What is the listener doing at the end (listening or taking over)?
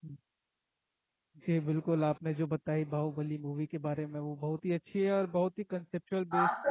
taking over